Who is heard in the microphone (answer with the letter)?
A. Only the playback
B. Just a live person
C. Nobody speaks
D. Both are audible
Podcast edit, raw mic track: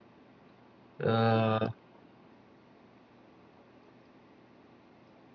B